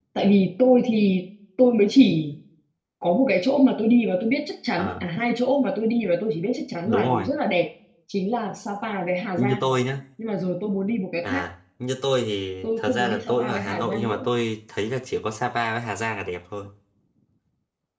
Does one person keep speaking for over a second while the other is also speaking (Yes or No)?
Yes